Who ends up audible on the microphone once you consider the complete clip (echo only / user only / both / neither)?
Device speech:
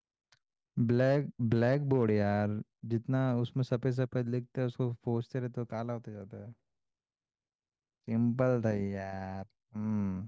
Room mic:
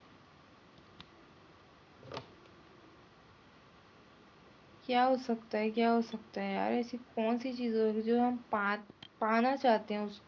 user only